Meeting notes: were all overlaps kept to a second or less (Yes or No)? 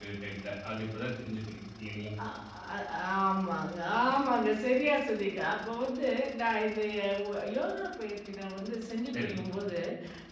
Yes